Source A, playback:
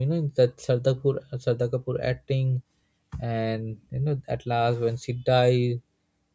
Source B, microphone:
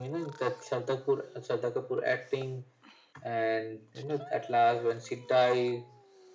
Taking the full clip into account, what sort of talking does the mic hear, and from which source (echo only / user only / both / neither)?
echo only